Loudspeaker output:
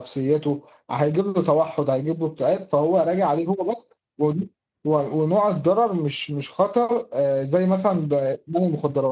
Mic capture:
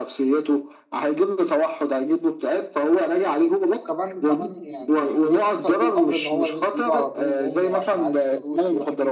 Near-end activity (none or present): present